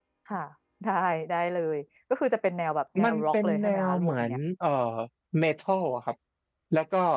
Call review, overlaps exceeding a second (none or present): present